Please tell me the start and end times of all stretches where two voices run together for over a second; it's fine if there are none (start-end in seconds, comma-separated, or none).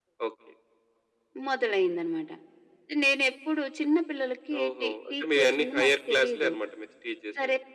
4.6-6.5